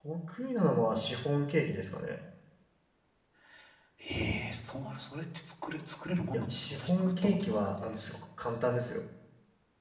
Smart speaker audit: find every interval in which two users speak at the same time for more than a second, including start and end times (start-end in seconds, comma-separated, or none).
6.3-8.0